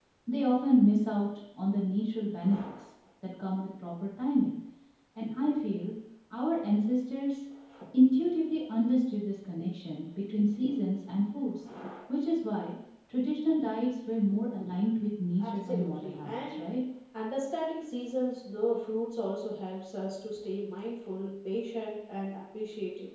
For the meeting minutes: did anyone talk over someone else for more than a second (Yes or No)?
Yes